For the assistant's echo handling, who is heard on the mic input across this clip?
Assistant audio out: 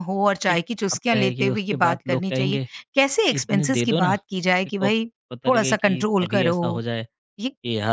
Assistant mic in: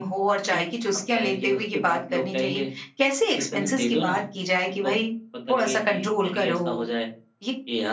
echo only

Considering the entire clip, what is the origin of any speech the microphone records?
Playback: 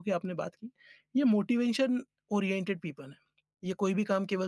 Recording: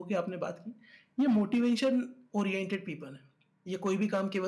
echo only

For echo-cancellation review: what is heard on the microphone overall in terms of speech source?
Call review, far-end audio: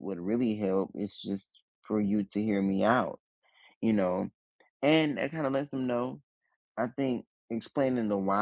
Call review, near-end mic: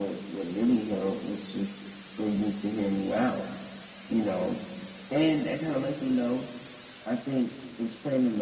echo only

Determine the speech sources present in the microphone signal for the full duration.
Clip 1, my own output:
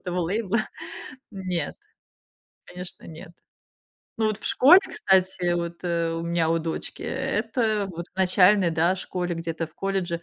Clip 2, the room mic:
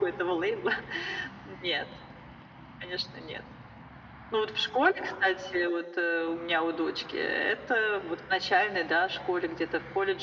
echo only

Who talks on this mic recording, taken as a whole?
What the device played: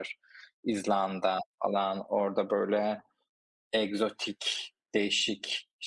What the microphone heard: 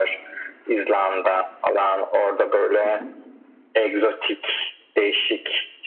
both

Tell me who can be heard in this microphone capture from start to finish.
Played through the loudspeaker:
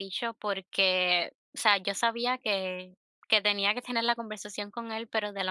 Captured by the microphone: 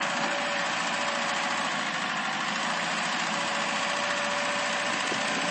neither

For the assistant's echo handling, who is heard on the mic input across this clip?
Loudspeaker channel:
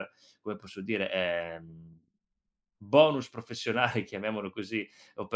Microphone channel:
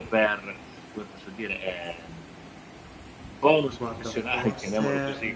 both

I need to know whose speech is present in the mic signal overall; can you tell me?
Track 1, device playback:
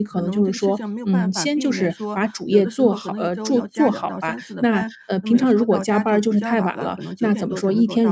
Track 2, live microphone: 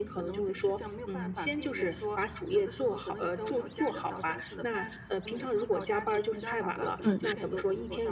both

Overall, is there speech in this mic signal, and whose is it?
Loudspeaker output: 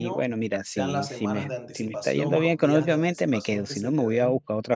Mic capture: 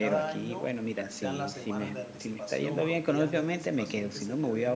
echo only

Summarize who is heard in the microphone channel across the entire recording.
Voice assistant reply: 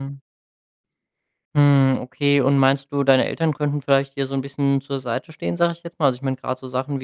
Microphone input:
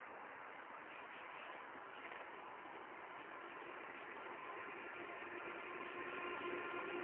neither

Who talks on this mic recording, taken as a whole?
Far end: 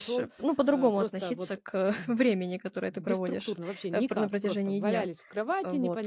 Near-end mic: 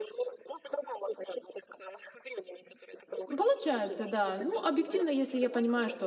both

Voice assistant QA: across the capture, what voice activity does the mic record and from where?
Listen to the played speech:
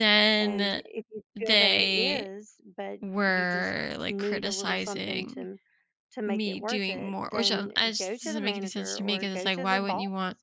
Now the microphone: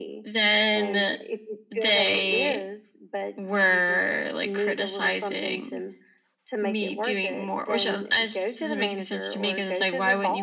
echo only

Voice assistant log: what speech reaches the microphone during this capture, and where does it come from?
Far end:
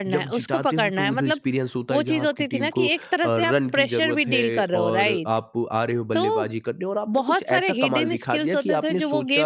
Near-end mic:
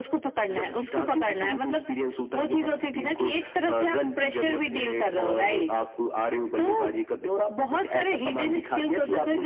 echo only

